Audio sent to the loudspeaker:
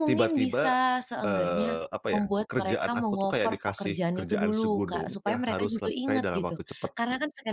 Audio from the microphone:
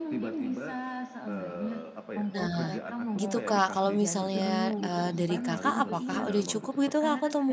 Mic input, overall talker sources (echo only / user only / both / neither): both